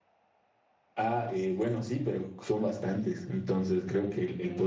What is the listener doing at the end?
listening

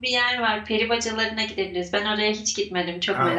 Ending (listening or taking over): taking over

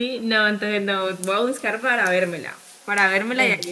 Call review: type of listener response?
listening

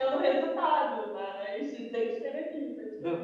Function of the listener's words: taking over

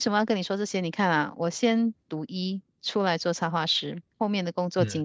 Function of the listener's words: listening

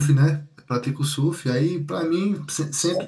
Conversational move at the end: listening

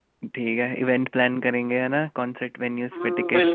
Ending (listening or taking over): taking over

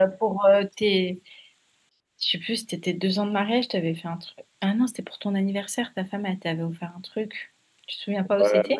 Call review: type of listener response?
taking over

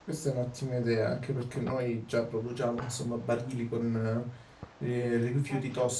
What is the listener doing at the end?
listening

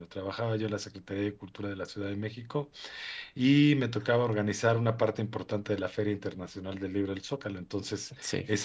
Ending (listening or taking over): listening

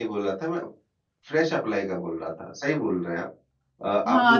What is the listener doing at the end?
taking over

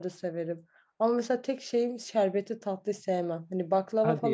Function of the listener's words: listening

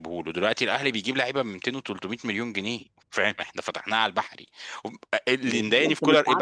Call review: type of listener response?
taking over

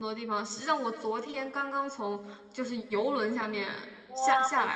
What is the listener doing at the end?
taking over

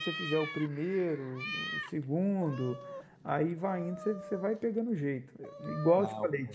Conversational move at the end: listening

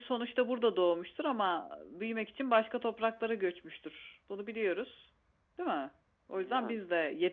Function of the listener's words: listening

